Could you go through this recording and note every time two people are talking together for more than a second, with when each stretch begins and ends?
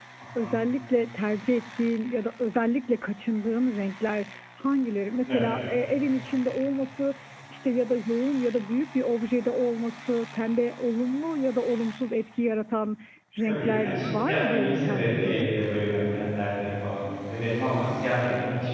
13.5-15.5

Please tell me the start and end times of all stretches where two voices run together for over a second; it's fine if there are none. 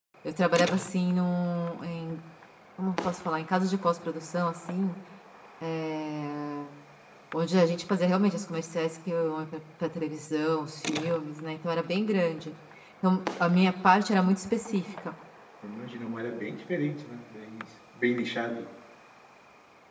none

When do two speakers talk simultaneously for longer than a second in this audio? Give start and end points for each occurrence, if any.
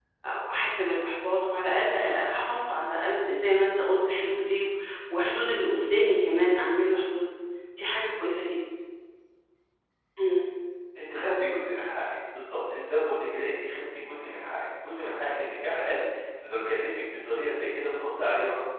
none

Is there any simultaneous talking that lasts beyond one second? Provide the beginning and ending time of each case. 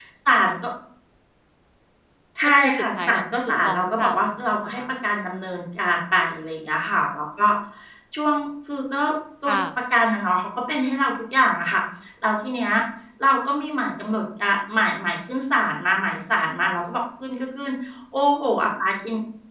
2.6-4.8

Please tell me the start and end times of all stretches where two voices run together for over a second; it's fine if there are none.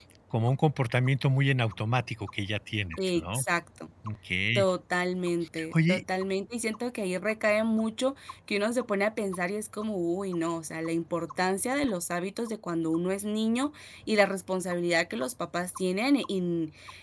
none

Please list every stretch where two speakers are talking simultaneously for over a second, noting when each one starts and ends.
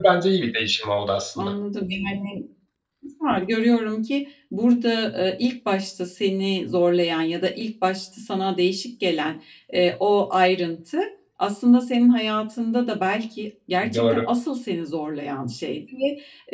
none

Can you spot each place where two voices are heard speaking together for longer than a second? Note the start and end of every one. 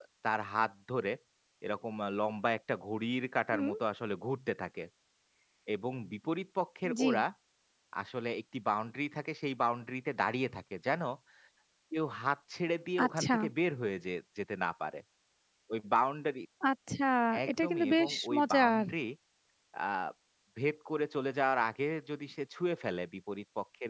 17.5-18.9

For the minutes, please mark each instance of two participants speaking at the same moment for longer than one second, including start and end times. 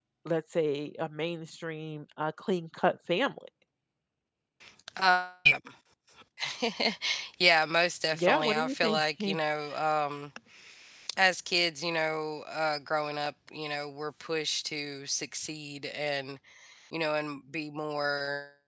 8.1-9.4

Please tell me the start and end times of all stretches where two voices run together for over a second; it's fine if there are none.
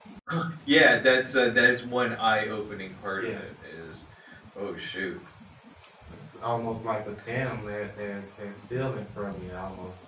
none

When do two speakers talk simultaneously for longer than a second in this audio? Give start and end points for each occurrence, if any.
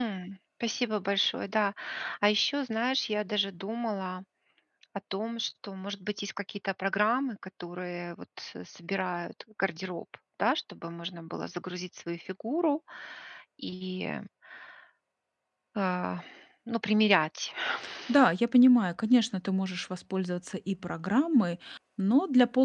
none

